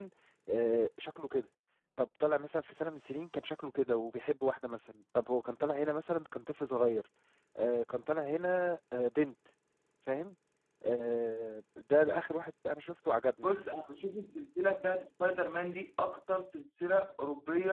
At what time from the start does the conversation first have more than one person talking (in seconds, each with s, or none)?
none